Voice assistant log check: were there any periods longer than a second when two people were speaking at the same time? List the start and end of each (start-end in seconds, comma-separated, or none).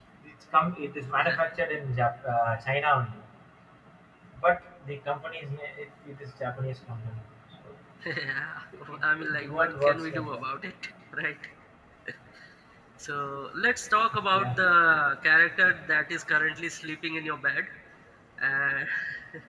9.0-10.4